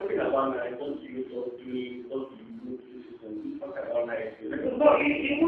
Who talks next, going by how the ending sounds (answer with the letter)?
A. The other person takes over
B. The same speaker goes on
A